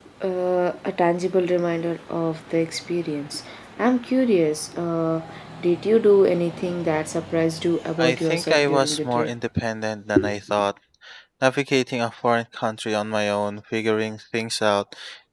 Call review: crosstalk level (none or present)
present